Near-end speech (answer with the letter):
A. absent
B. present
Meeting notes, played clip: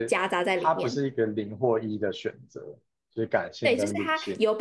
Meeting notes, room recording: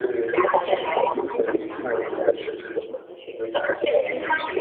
B